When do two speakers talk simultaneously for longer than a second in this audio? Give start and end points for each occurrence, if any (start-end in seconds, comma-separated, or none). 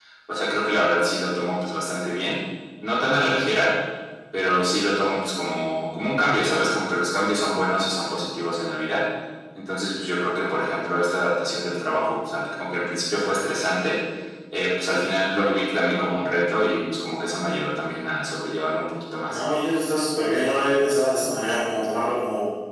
none